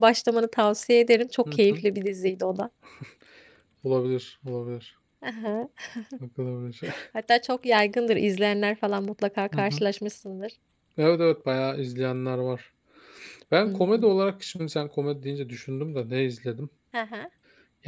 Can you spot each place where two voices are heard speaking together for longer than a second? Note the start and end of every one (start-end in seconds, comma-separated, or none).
none